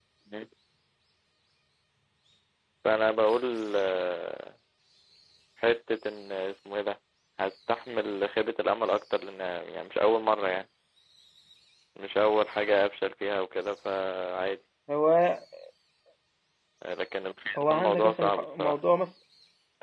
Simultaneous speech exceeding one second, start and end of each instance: 17.6-18.8

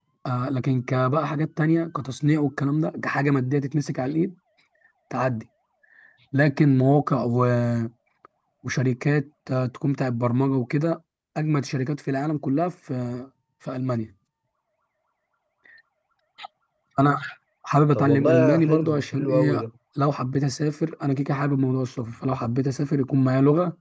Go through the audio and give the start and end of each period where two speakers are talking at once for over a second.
17.9-19.6

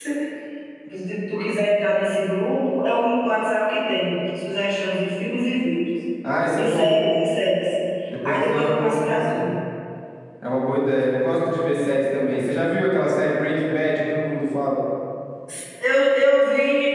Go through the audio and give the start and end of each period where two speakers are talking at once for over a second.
8.2-9.5

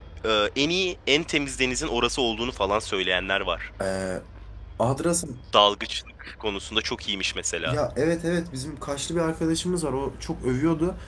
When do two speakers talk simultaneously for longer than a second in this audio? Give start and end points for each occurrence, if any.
none

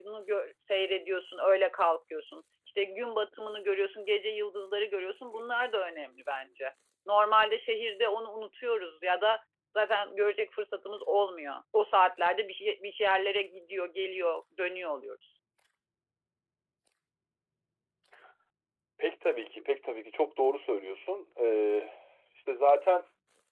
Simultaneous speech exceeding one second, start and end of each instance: none

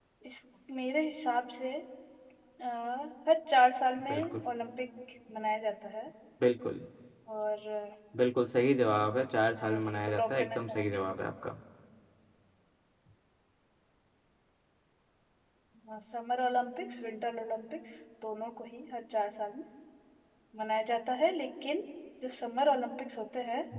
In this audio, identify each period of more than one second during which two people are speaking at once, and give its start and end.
9.6-11.0

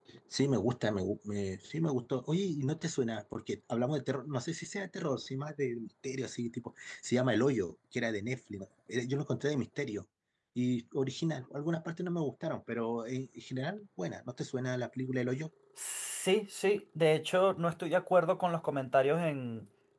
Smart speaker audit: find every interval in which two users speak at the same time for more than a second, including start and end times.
none

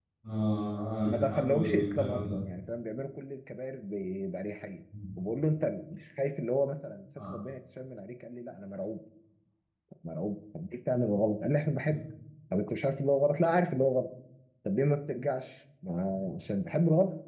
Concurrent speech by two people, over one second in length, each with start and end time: 1.1-2.5

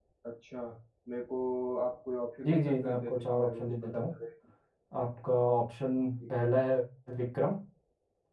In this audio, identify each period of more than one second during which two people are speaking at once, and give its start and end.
2.5-4.1

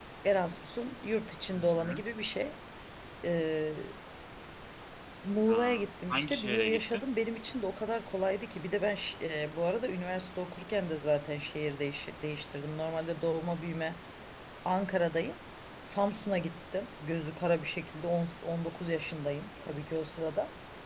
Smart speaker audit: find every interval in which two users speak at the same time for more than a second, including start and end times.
5.5-7.0

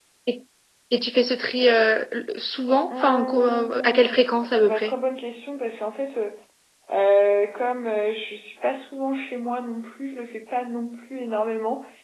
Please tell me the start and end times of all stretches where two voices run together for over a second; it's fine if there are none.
2.9-4.2

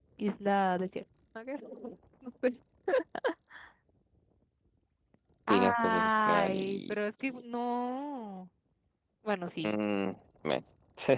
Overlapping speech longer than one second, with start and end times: 5.5-7.0

